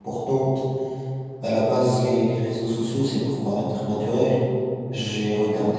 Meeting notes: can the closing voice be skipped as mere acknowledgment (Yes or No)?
Yes